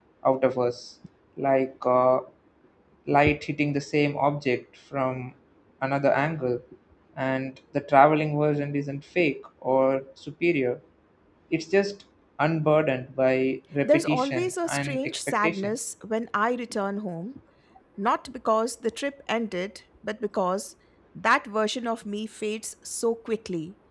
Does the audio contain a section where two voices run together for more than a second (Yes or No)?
Yes